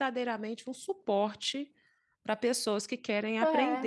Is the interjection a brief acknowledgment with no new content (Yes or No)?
No